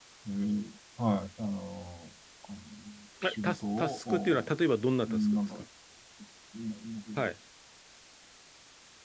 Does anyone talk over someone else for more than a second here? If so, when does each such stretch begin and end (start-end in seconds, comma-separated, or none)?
3.2-4.5